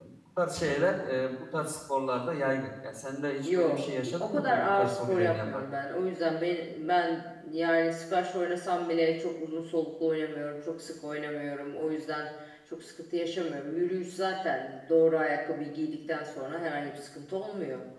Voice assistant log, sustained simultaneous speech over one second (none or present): present